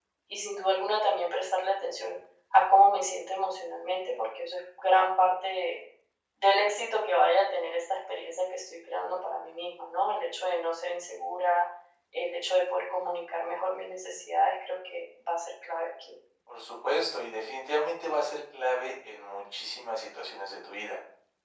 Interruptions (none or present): none